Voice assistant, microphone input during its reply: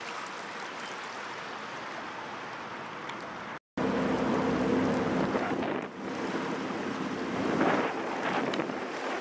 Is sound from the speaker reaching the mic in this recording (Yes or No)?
No